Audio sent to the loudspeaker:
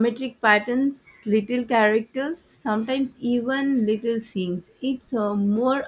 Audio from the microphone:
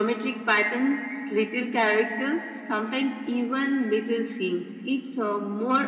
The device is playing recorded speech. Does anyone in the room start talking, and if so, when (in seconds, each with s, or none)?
none